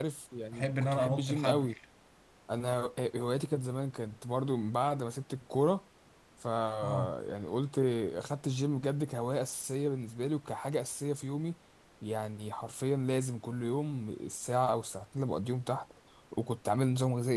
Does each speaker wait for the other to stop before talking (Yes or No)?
No